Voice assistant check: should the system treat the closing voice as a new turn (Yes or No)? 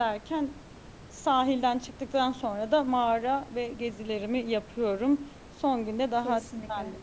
No